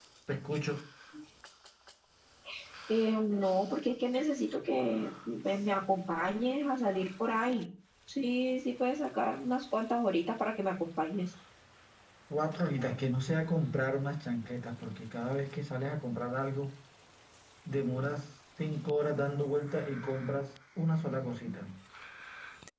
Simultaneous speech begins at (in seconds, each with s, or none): none